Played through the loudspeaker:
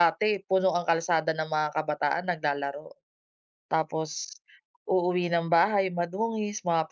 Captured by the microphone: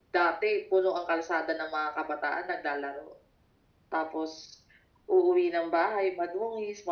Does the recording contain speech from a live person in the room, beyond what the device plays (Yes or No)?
No